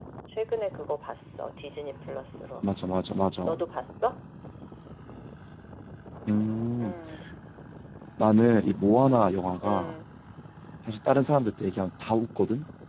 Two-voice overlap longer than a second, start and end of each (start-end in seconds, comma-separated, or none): none